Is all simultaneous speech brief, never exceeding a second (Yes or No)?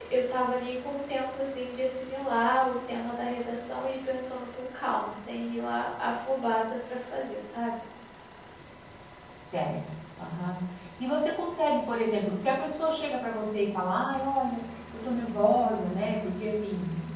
Yes